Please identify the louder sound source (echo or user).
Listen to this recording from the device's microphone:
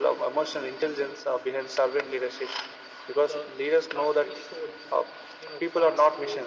echo